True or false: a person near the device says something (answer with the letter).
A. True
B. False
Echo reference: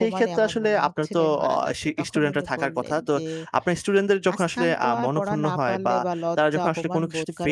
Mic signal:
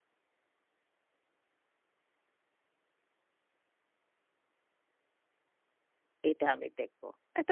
A